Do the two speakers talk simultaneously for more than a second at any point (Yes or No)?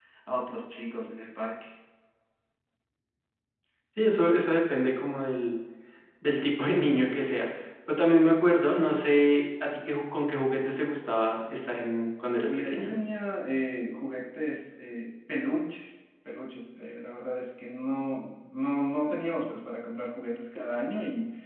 No